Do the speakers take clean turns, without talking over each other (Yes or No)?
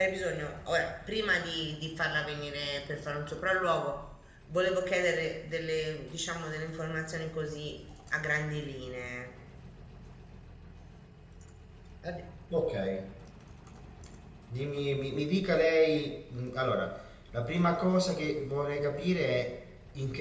Yes